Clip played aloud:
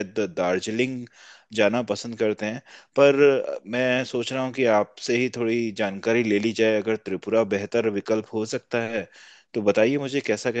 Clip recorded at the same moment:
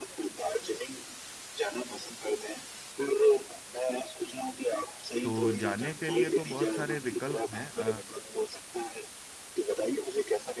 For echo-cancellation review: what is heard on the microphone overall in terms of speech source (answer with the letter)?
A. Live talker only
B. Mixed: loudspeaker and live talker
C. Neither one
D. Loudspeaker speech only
B